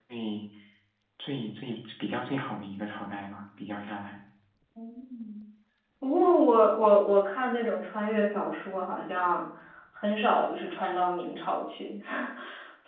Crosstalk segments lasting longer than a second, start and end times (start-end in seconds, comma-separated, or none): none